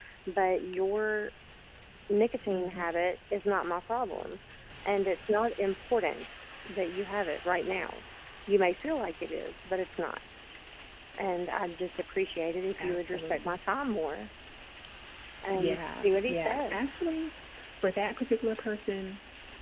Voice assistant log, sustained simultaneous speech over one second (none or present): present